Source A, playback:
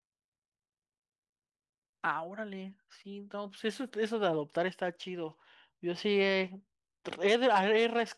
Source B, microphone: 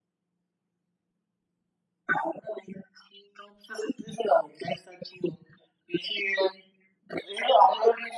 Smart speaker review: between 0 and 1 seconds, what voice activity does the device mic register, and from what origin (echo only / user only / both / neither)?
neither